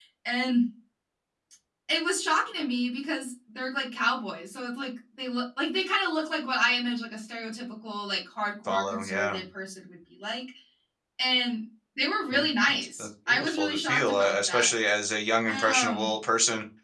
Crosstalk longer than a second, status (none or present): present